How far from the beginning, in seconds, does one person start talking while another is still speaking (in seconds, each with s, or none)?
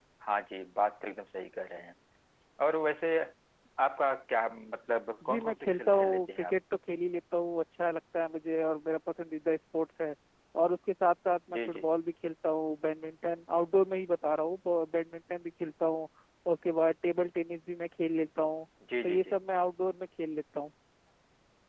5.2 s